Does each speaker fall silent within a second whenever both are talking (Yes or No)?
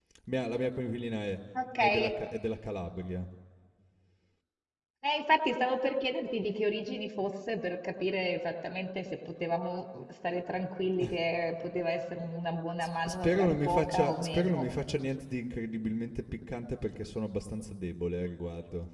No